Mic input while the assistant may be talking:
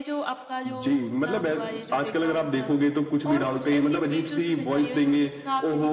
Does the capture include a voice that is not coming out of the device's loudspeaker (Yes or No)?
No